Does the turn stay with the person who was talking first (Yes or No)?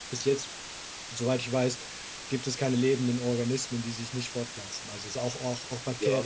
No